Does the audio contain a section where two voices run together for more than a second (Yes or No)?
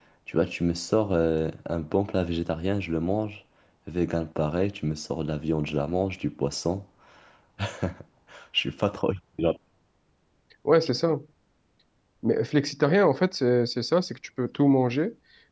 No